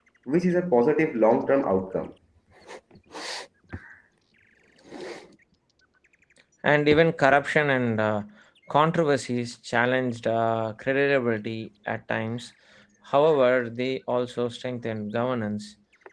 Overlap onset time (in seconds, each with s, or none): none